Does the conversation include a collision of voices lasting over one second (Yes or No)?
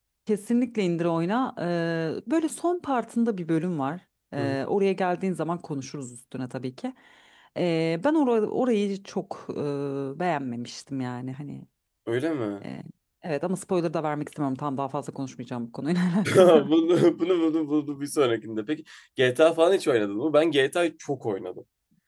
No